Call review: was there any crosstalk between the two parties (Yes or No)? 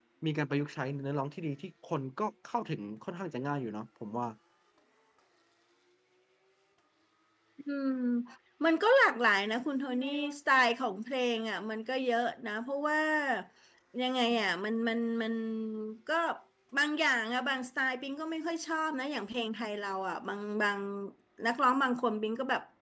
No